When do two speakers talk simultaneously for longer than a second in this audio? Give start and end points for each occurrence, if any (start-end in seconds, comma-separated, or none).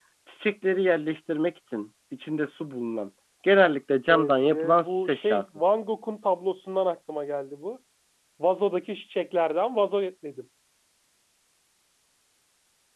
4.1-5.6